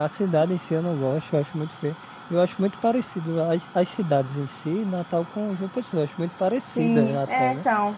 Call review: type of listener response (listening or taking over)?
taking over